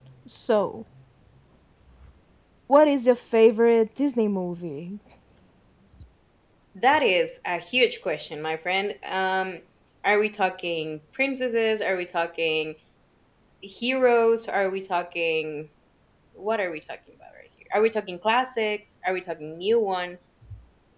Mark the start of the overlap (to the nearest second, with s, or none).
none